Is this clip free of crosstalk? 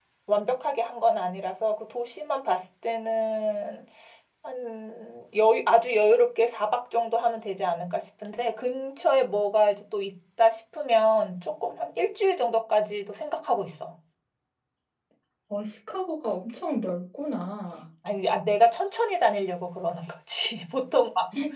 Yes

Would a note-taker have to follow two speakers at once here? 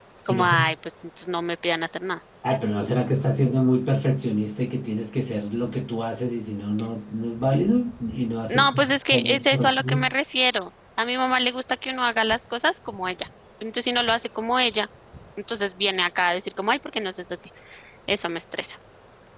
Yes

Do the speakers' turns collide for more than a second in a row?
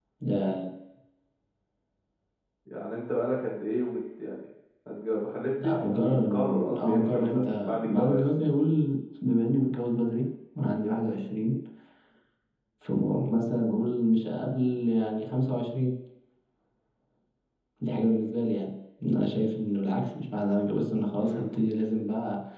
Yes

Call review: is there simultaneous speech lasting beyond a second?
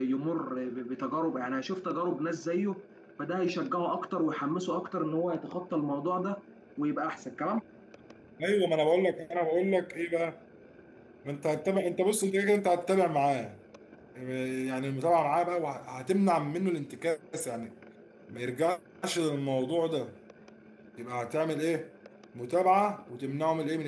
No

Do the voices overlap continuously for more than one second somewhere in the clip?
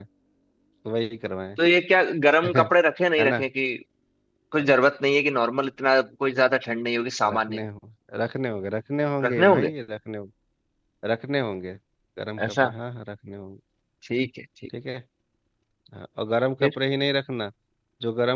No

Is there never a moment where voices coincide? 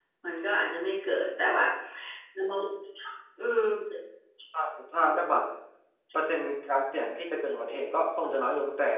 Yes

